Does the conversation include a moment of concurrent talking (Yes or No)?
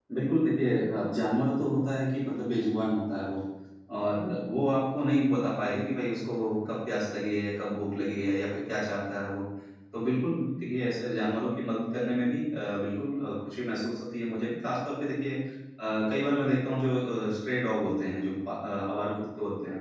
No